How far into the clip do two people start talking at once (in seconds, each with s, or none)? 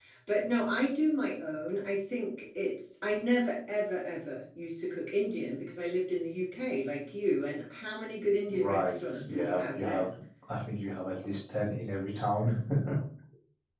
8.5 s